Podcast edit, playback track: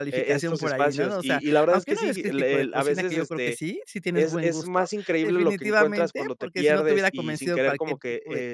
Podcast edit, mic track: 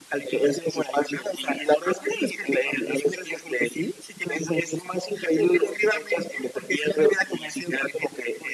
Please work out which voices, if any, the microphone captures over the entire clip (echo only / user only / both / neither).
echo only